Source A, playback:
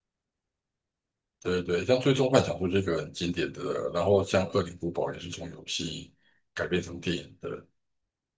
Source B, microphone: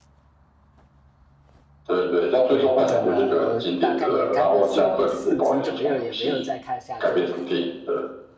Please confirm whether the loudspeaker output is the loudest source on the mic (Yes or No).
Yes